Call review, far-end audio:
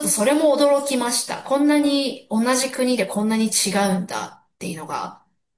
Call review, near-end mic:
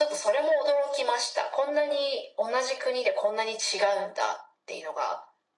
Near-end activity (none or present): none